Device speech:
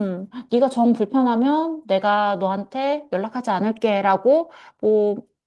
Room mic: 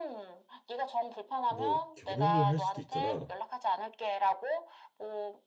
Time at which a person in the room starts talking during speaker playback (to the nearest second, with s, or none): 1 s